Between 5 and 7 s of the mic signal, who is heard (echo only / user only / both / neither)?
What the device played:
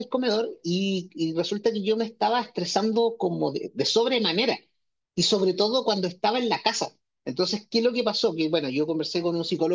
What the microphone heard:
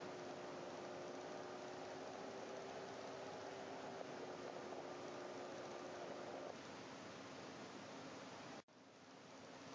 neither